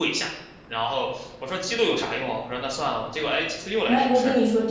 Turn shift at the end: Yes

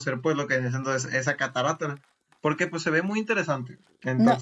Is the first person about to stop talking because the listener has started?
Yes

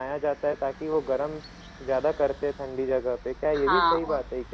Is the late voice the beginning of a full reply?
Yes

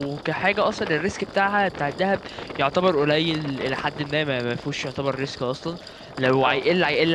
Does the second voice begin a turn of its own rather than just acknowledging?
No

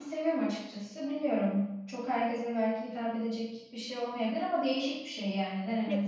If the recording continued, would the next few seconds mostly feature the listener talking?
Yes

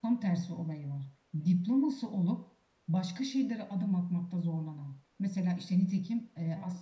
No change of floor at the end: Yes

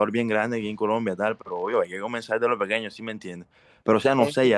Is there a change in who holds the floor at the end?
No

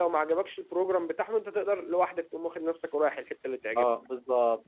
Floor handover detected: Yes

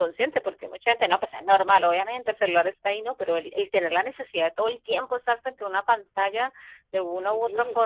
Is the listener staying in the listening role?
Yes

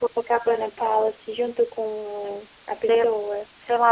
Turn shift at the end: Yes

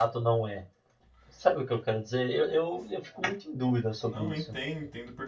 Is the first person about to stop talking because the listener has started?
Yes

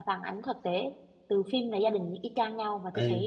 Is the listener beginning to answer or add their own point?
No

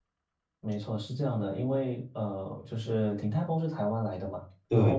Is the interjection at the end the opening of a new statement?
No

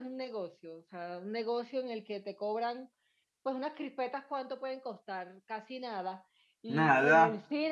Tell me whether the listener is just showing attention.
Yes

